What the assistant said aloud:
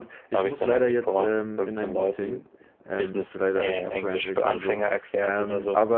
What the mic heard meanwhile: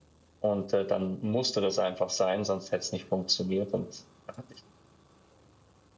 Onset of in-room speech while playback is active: 0 s

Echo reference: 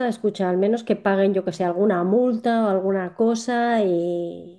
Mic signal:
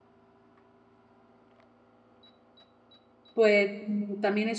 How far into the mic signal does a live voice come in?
3 s

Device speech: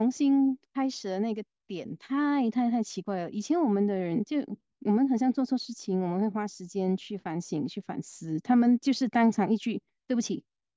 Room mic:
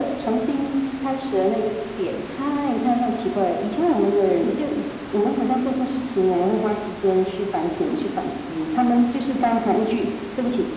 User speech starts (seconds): none

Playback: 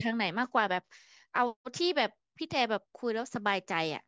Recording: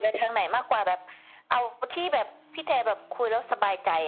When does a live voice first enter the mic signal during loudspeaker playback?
none

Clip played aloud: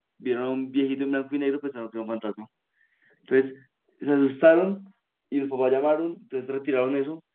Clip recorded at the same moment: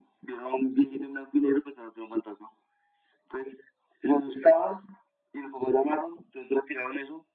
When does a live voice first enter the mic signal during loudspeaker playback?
none

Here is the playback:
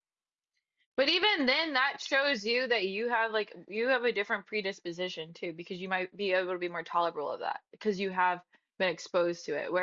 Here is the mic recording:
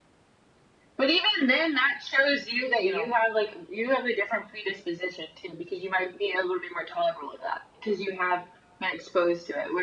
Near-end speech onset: 3 s

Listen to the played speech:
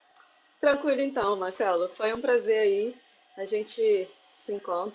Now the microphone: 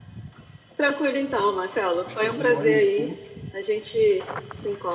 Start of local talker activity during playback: 2 s

